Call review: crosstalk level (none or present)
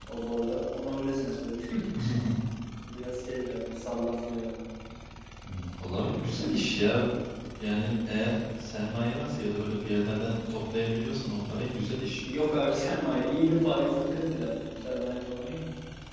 none